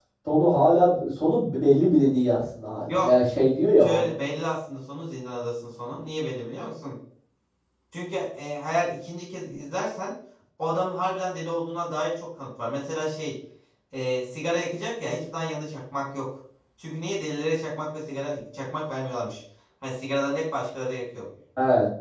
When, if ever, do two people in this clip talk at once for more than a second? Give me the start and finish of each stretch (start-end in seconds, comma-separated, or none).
none